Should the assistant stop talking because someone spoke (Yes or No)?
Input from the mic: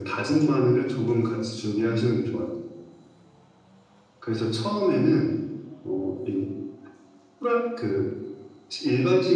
No